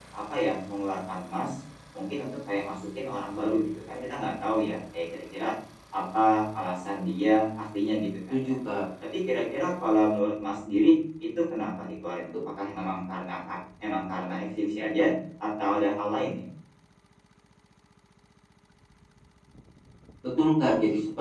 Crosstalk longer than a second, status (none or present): none